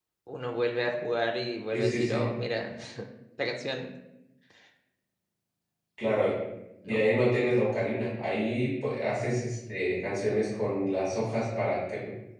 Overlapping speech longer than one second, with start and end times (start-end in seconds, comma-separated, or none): none